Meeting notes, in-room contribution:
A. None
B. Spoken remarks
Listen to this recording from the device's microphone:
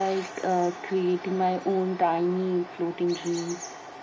A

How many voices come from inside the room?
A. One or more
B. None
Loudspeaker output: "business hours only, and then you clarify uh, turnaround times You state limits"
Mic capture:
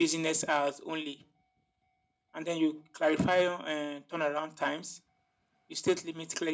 B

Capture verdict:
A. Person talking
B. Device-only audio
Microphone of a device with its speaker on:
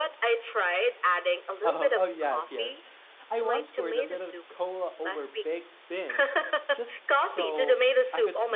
A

